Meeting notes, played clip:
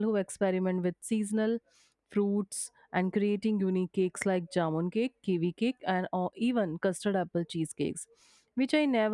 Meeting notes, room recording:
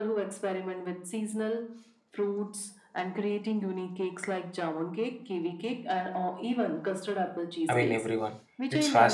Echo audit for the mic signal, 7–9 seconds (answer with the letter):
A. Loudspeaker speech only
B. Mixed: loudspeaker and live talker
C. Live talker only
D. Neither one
B